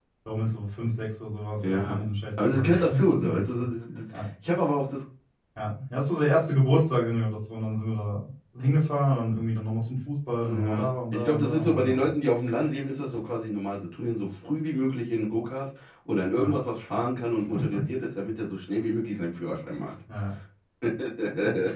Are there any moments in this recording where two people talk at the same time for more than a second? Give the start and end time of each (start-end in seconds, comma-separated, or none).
2.4-3.6, 10.4-12.0